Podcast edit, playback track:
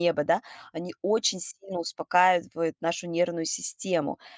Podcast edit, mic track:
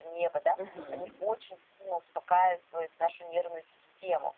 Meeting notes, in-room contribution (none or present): present